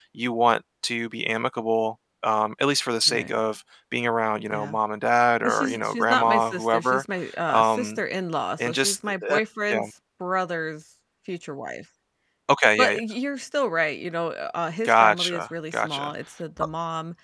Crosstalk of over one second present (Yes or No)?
Yes